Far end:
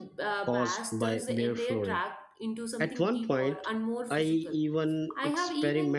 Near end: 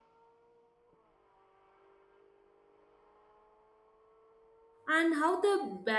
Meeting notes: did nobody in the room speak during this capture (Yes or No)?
No